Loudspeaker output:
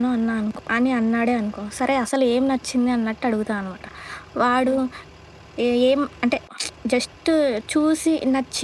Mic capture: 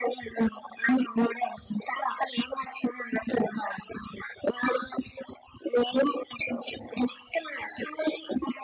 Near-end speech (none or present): none